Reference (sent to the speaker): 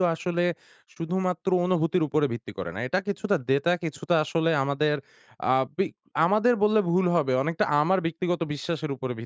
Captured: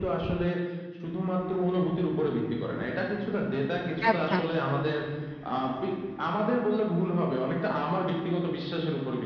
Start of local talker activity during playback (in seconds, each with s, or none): 4.1 s